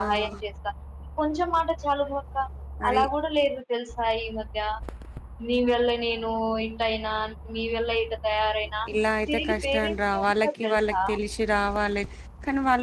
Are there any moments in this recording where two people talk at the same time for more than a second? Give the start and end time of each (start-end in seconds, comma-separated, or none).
9.3-11.0